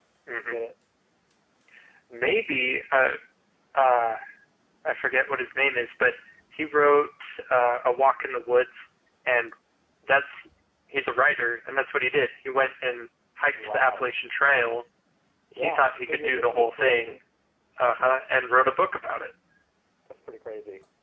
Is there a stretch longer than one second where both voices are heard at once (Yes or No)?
Yes